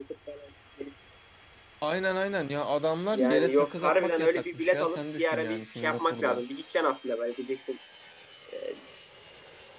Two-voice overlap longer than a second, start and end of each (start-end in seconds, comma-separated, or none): 3.1-6.4